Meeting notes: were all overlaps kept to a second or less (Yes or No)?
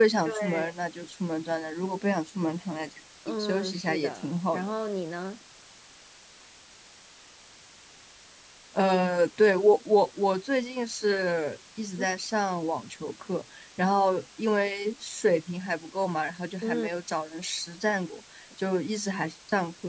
No